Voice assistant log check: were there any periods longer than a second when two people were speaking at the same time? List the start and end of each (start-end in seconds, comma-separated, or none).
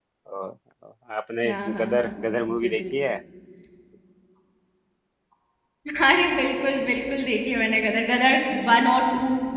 1.4-2.9